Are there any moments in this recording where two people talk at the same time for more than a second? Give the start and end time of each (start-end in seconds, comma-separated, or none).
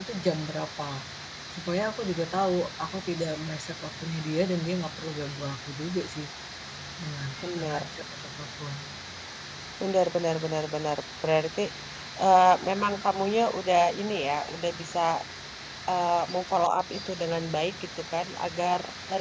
none